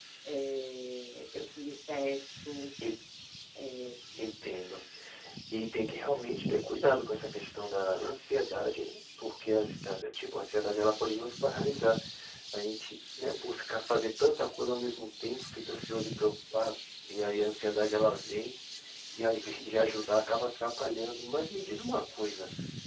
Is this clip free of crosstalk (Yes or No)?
Yes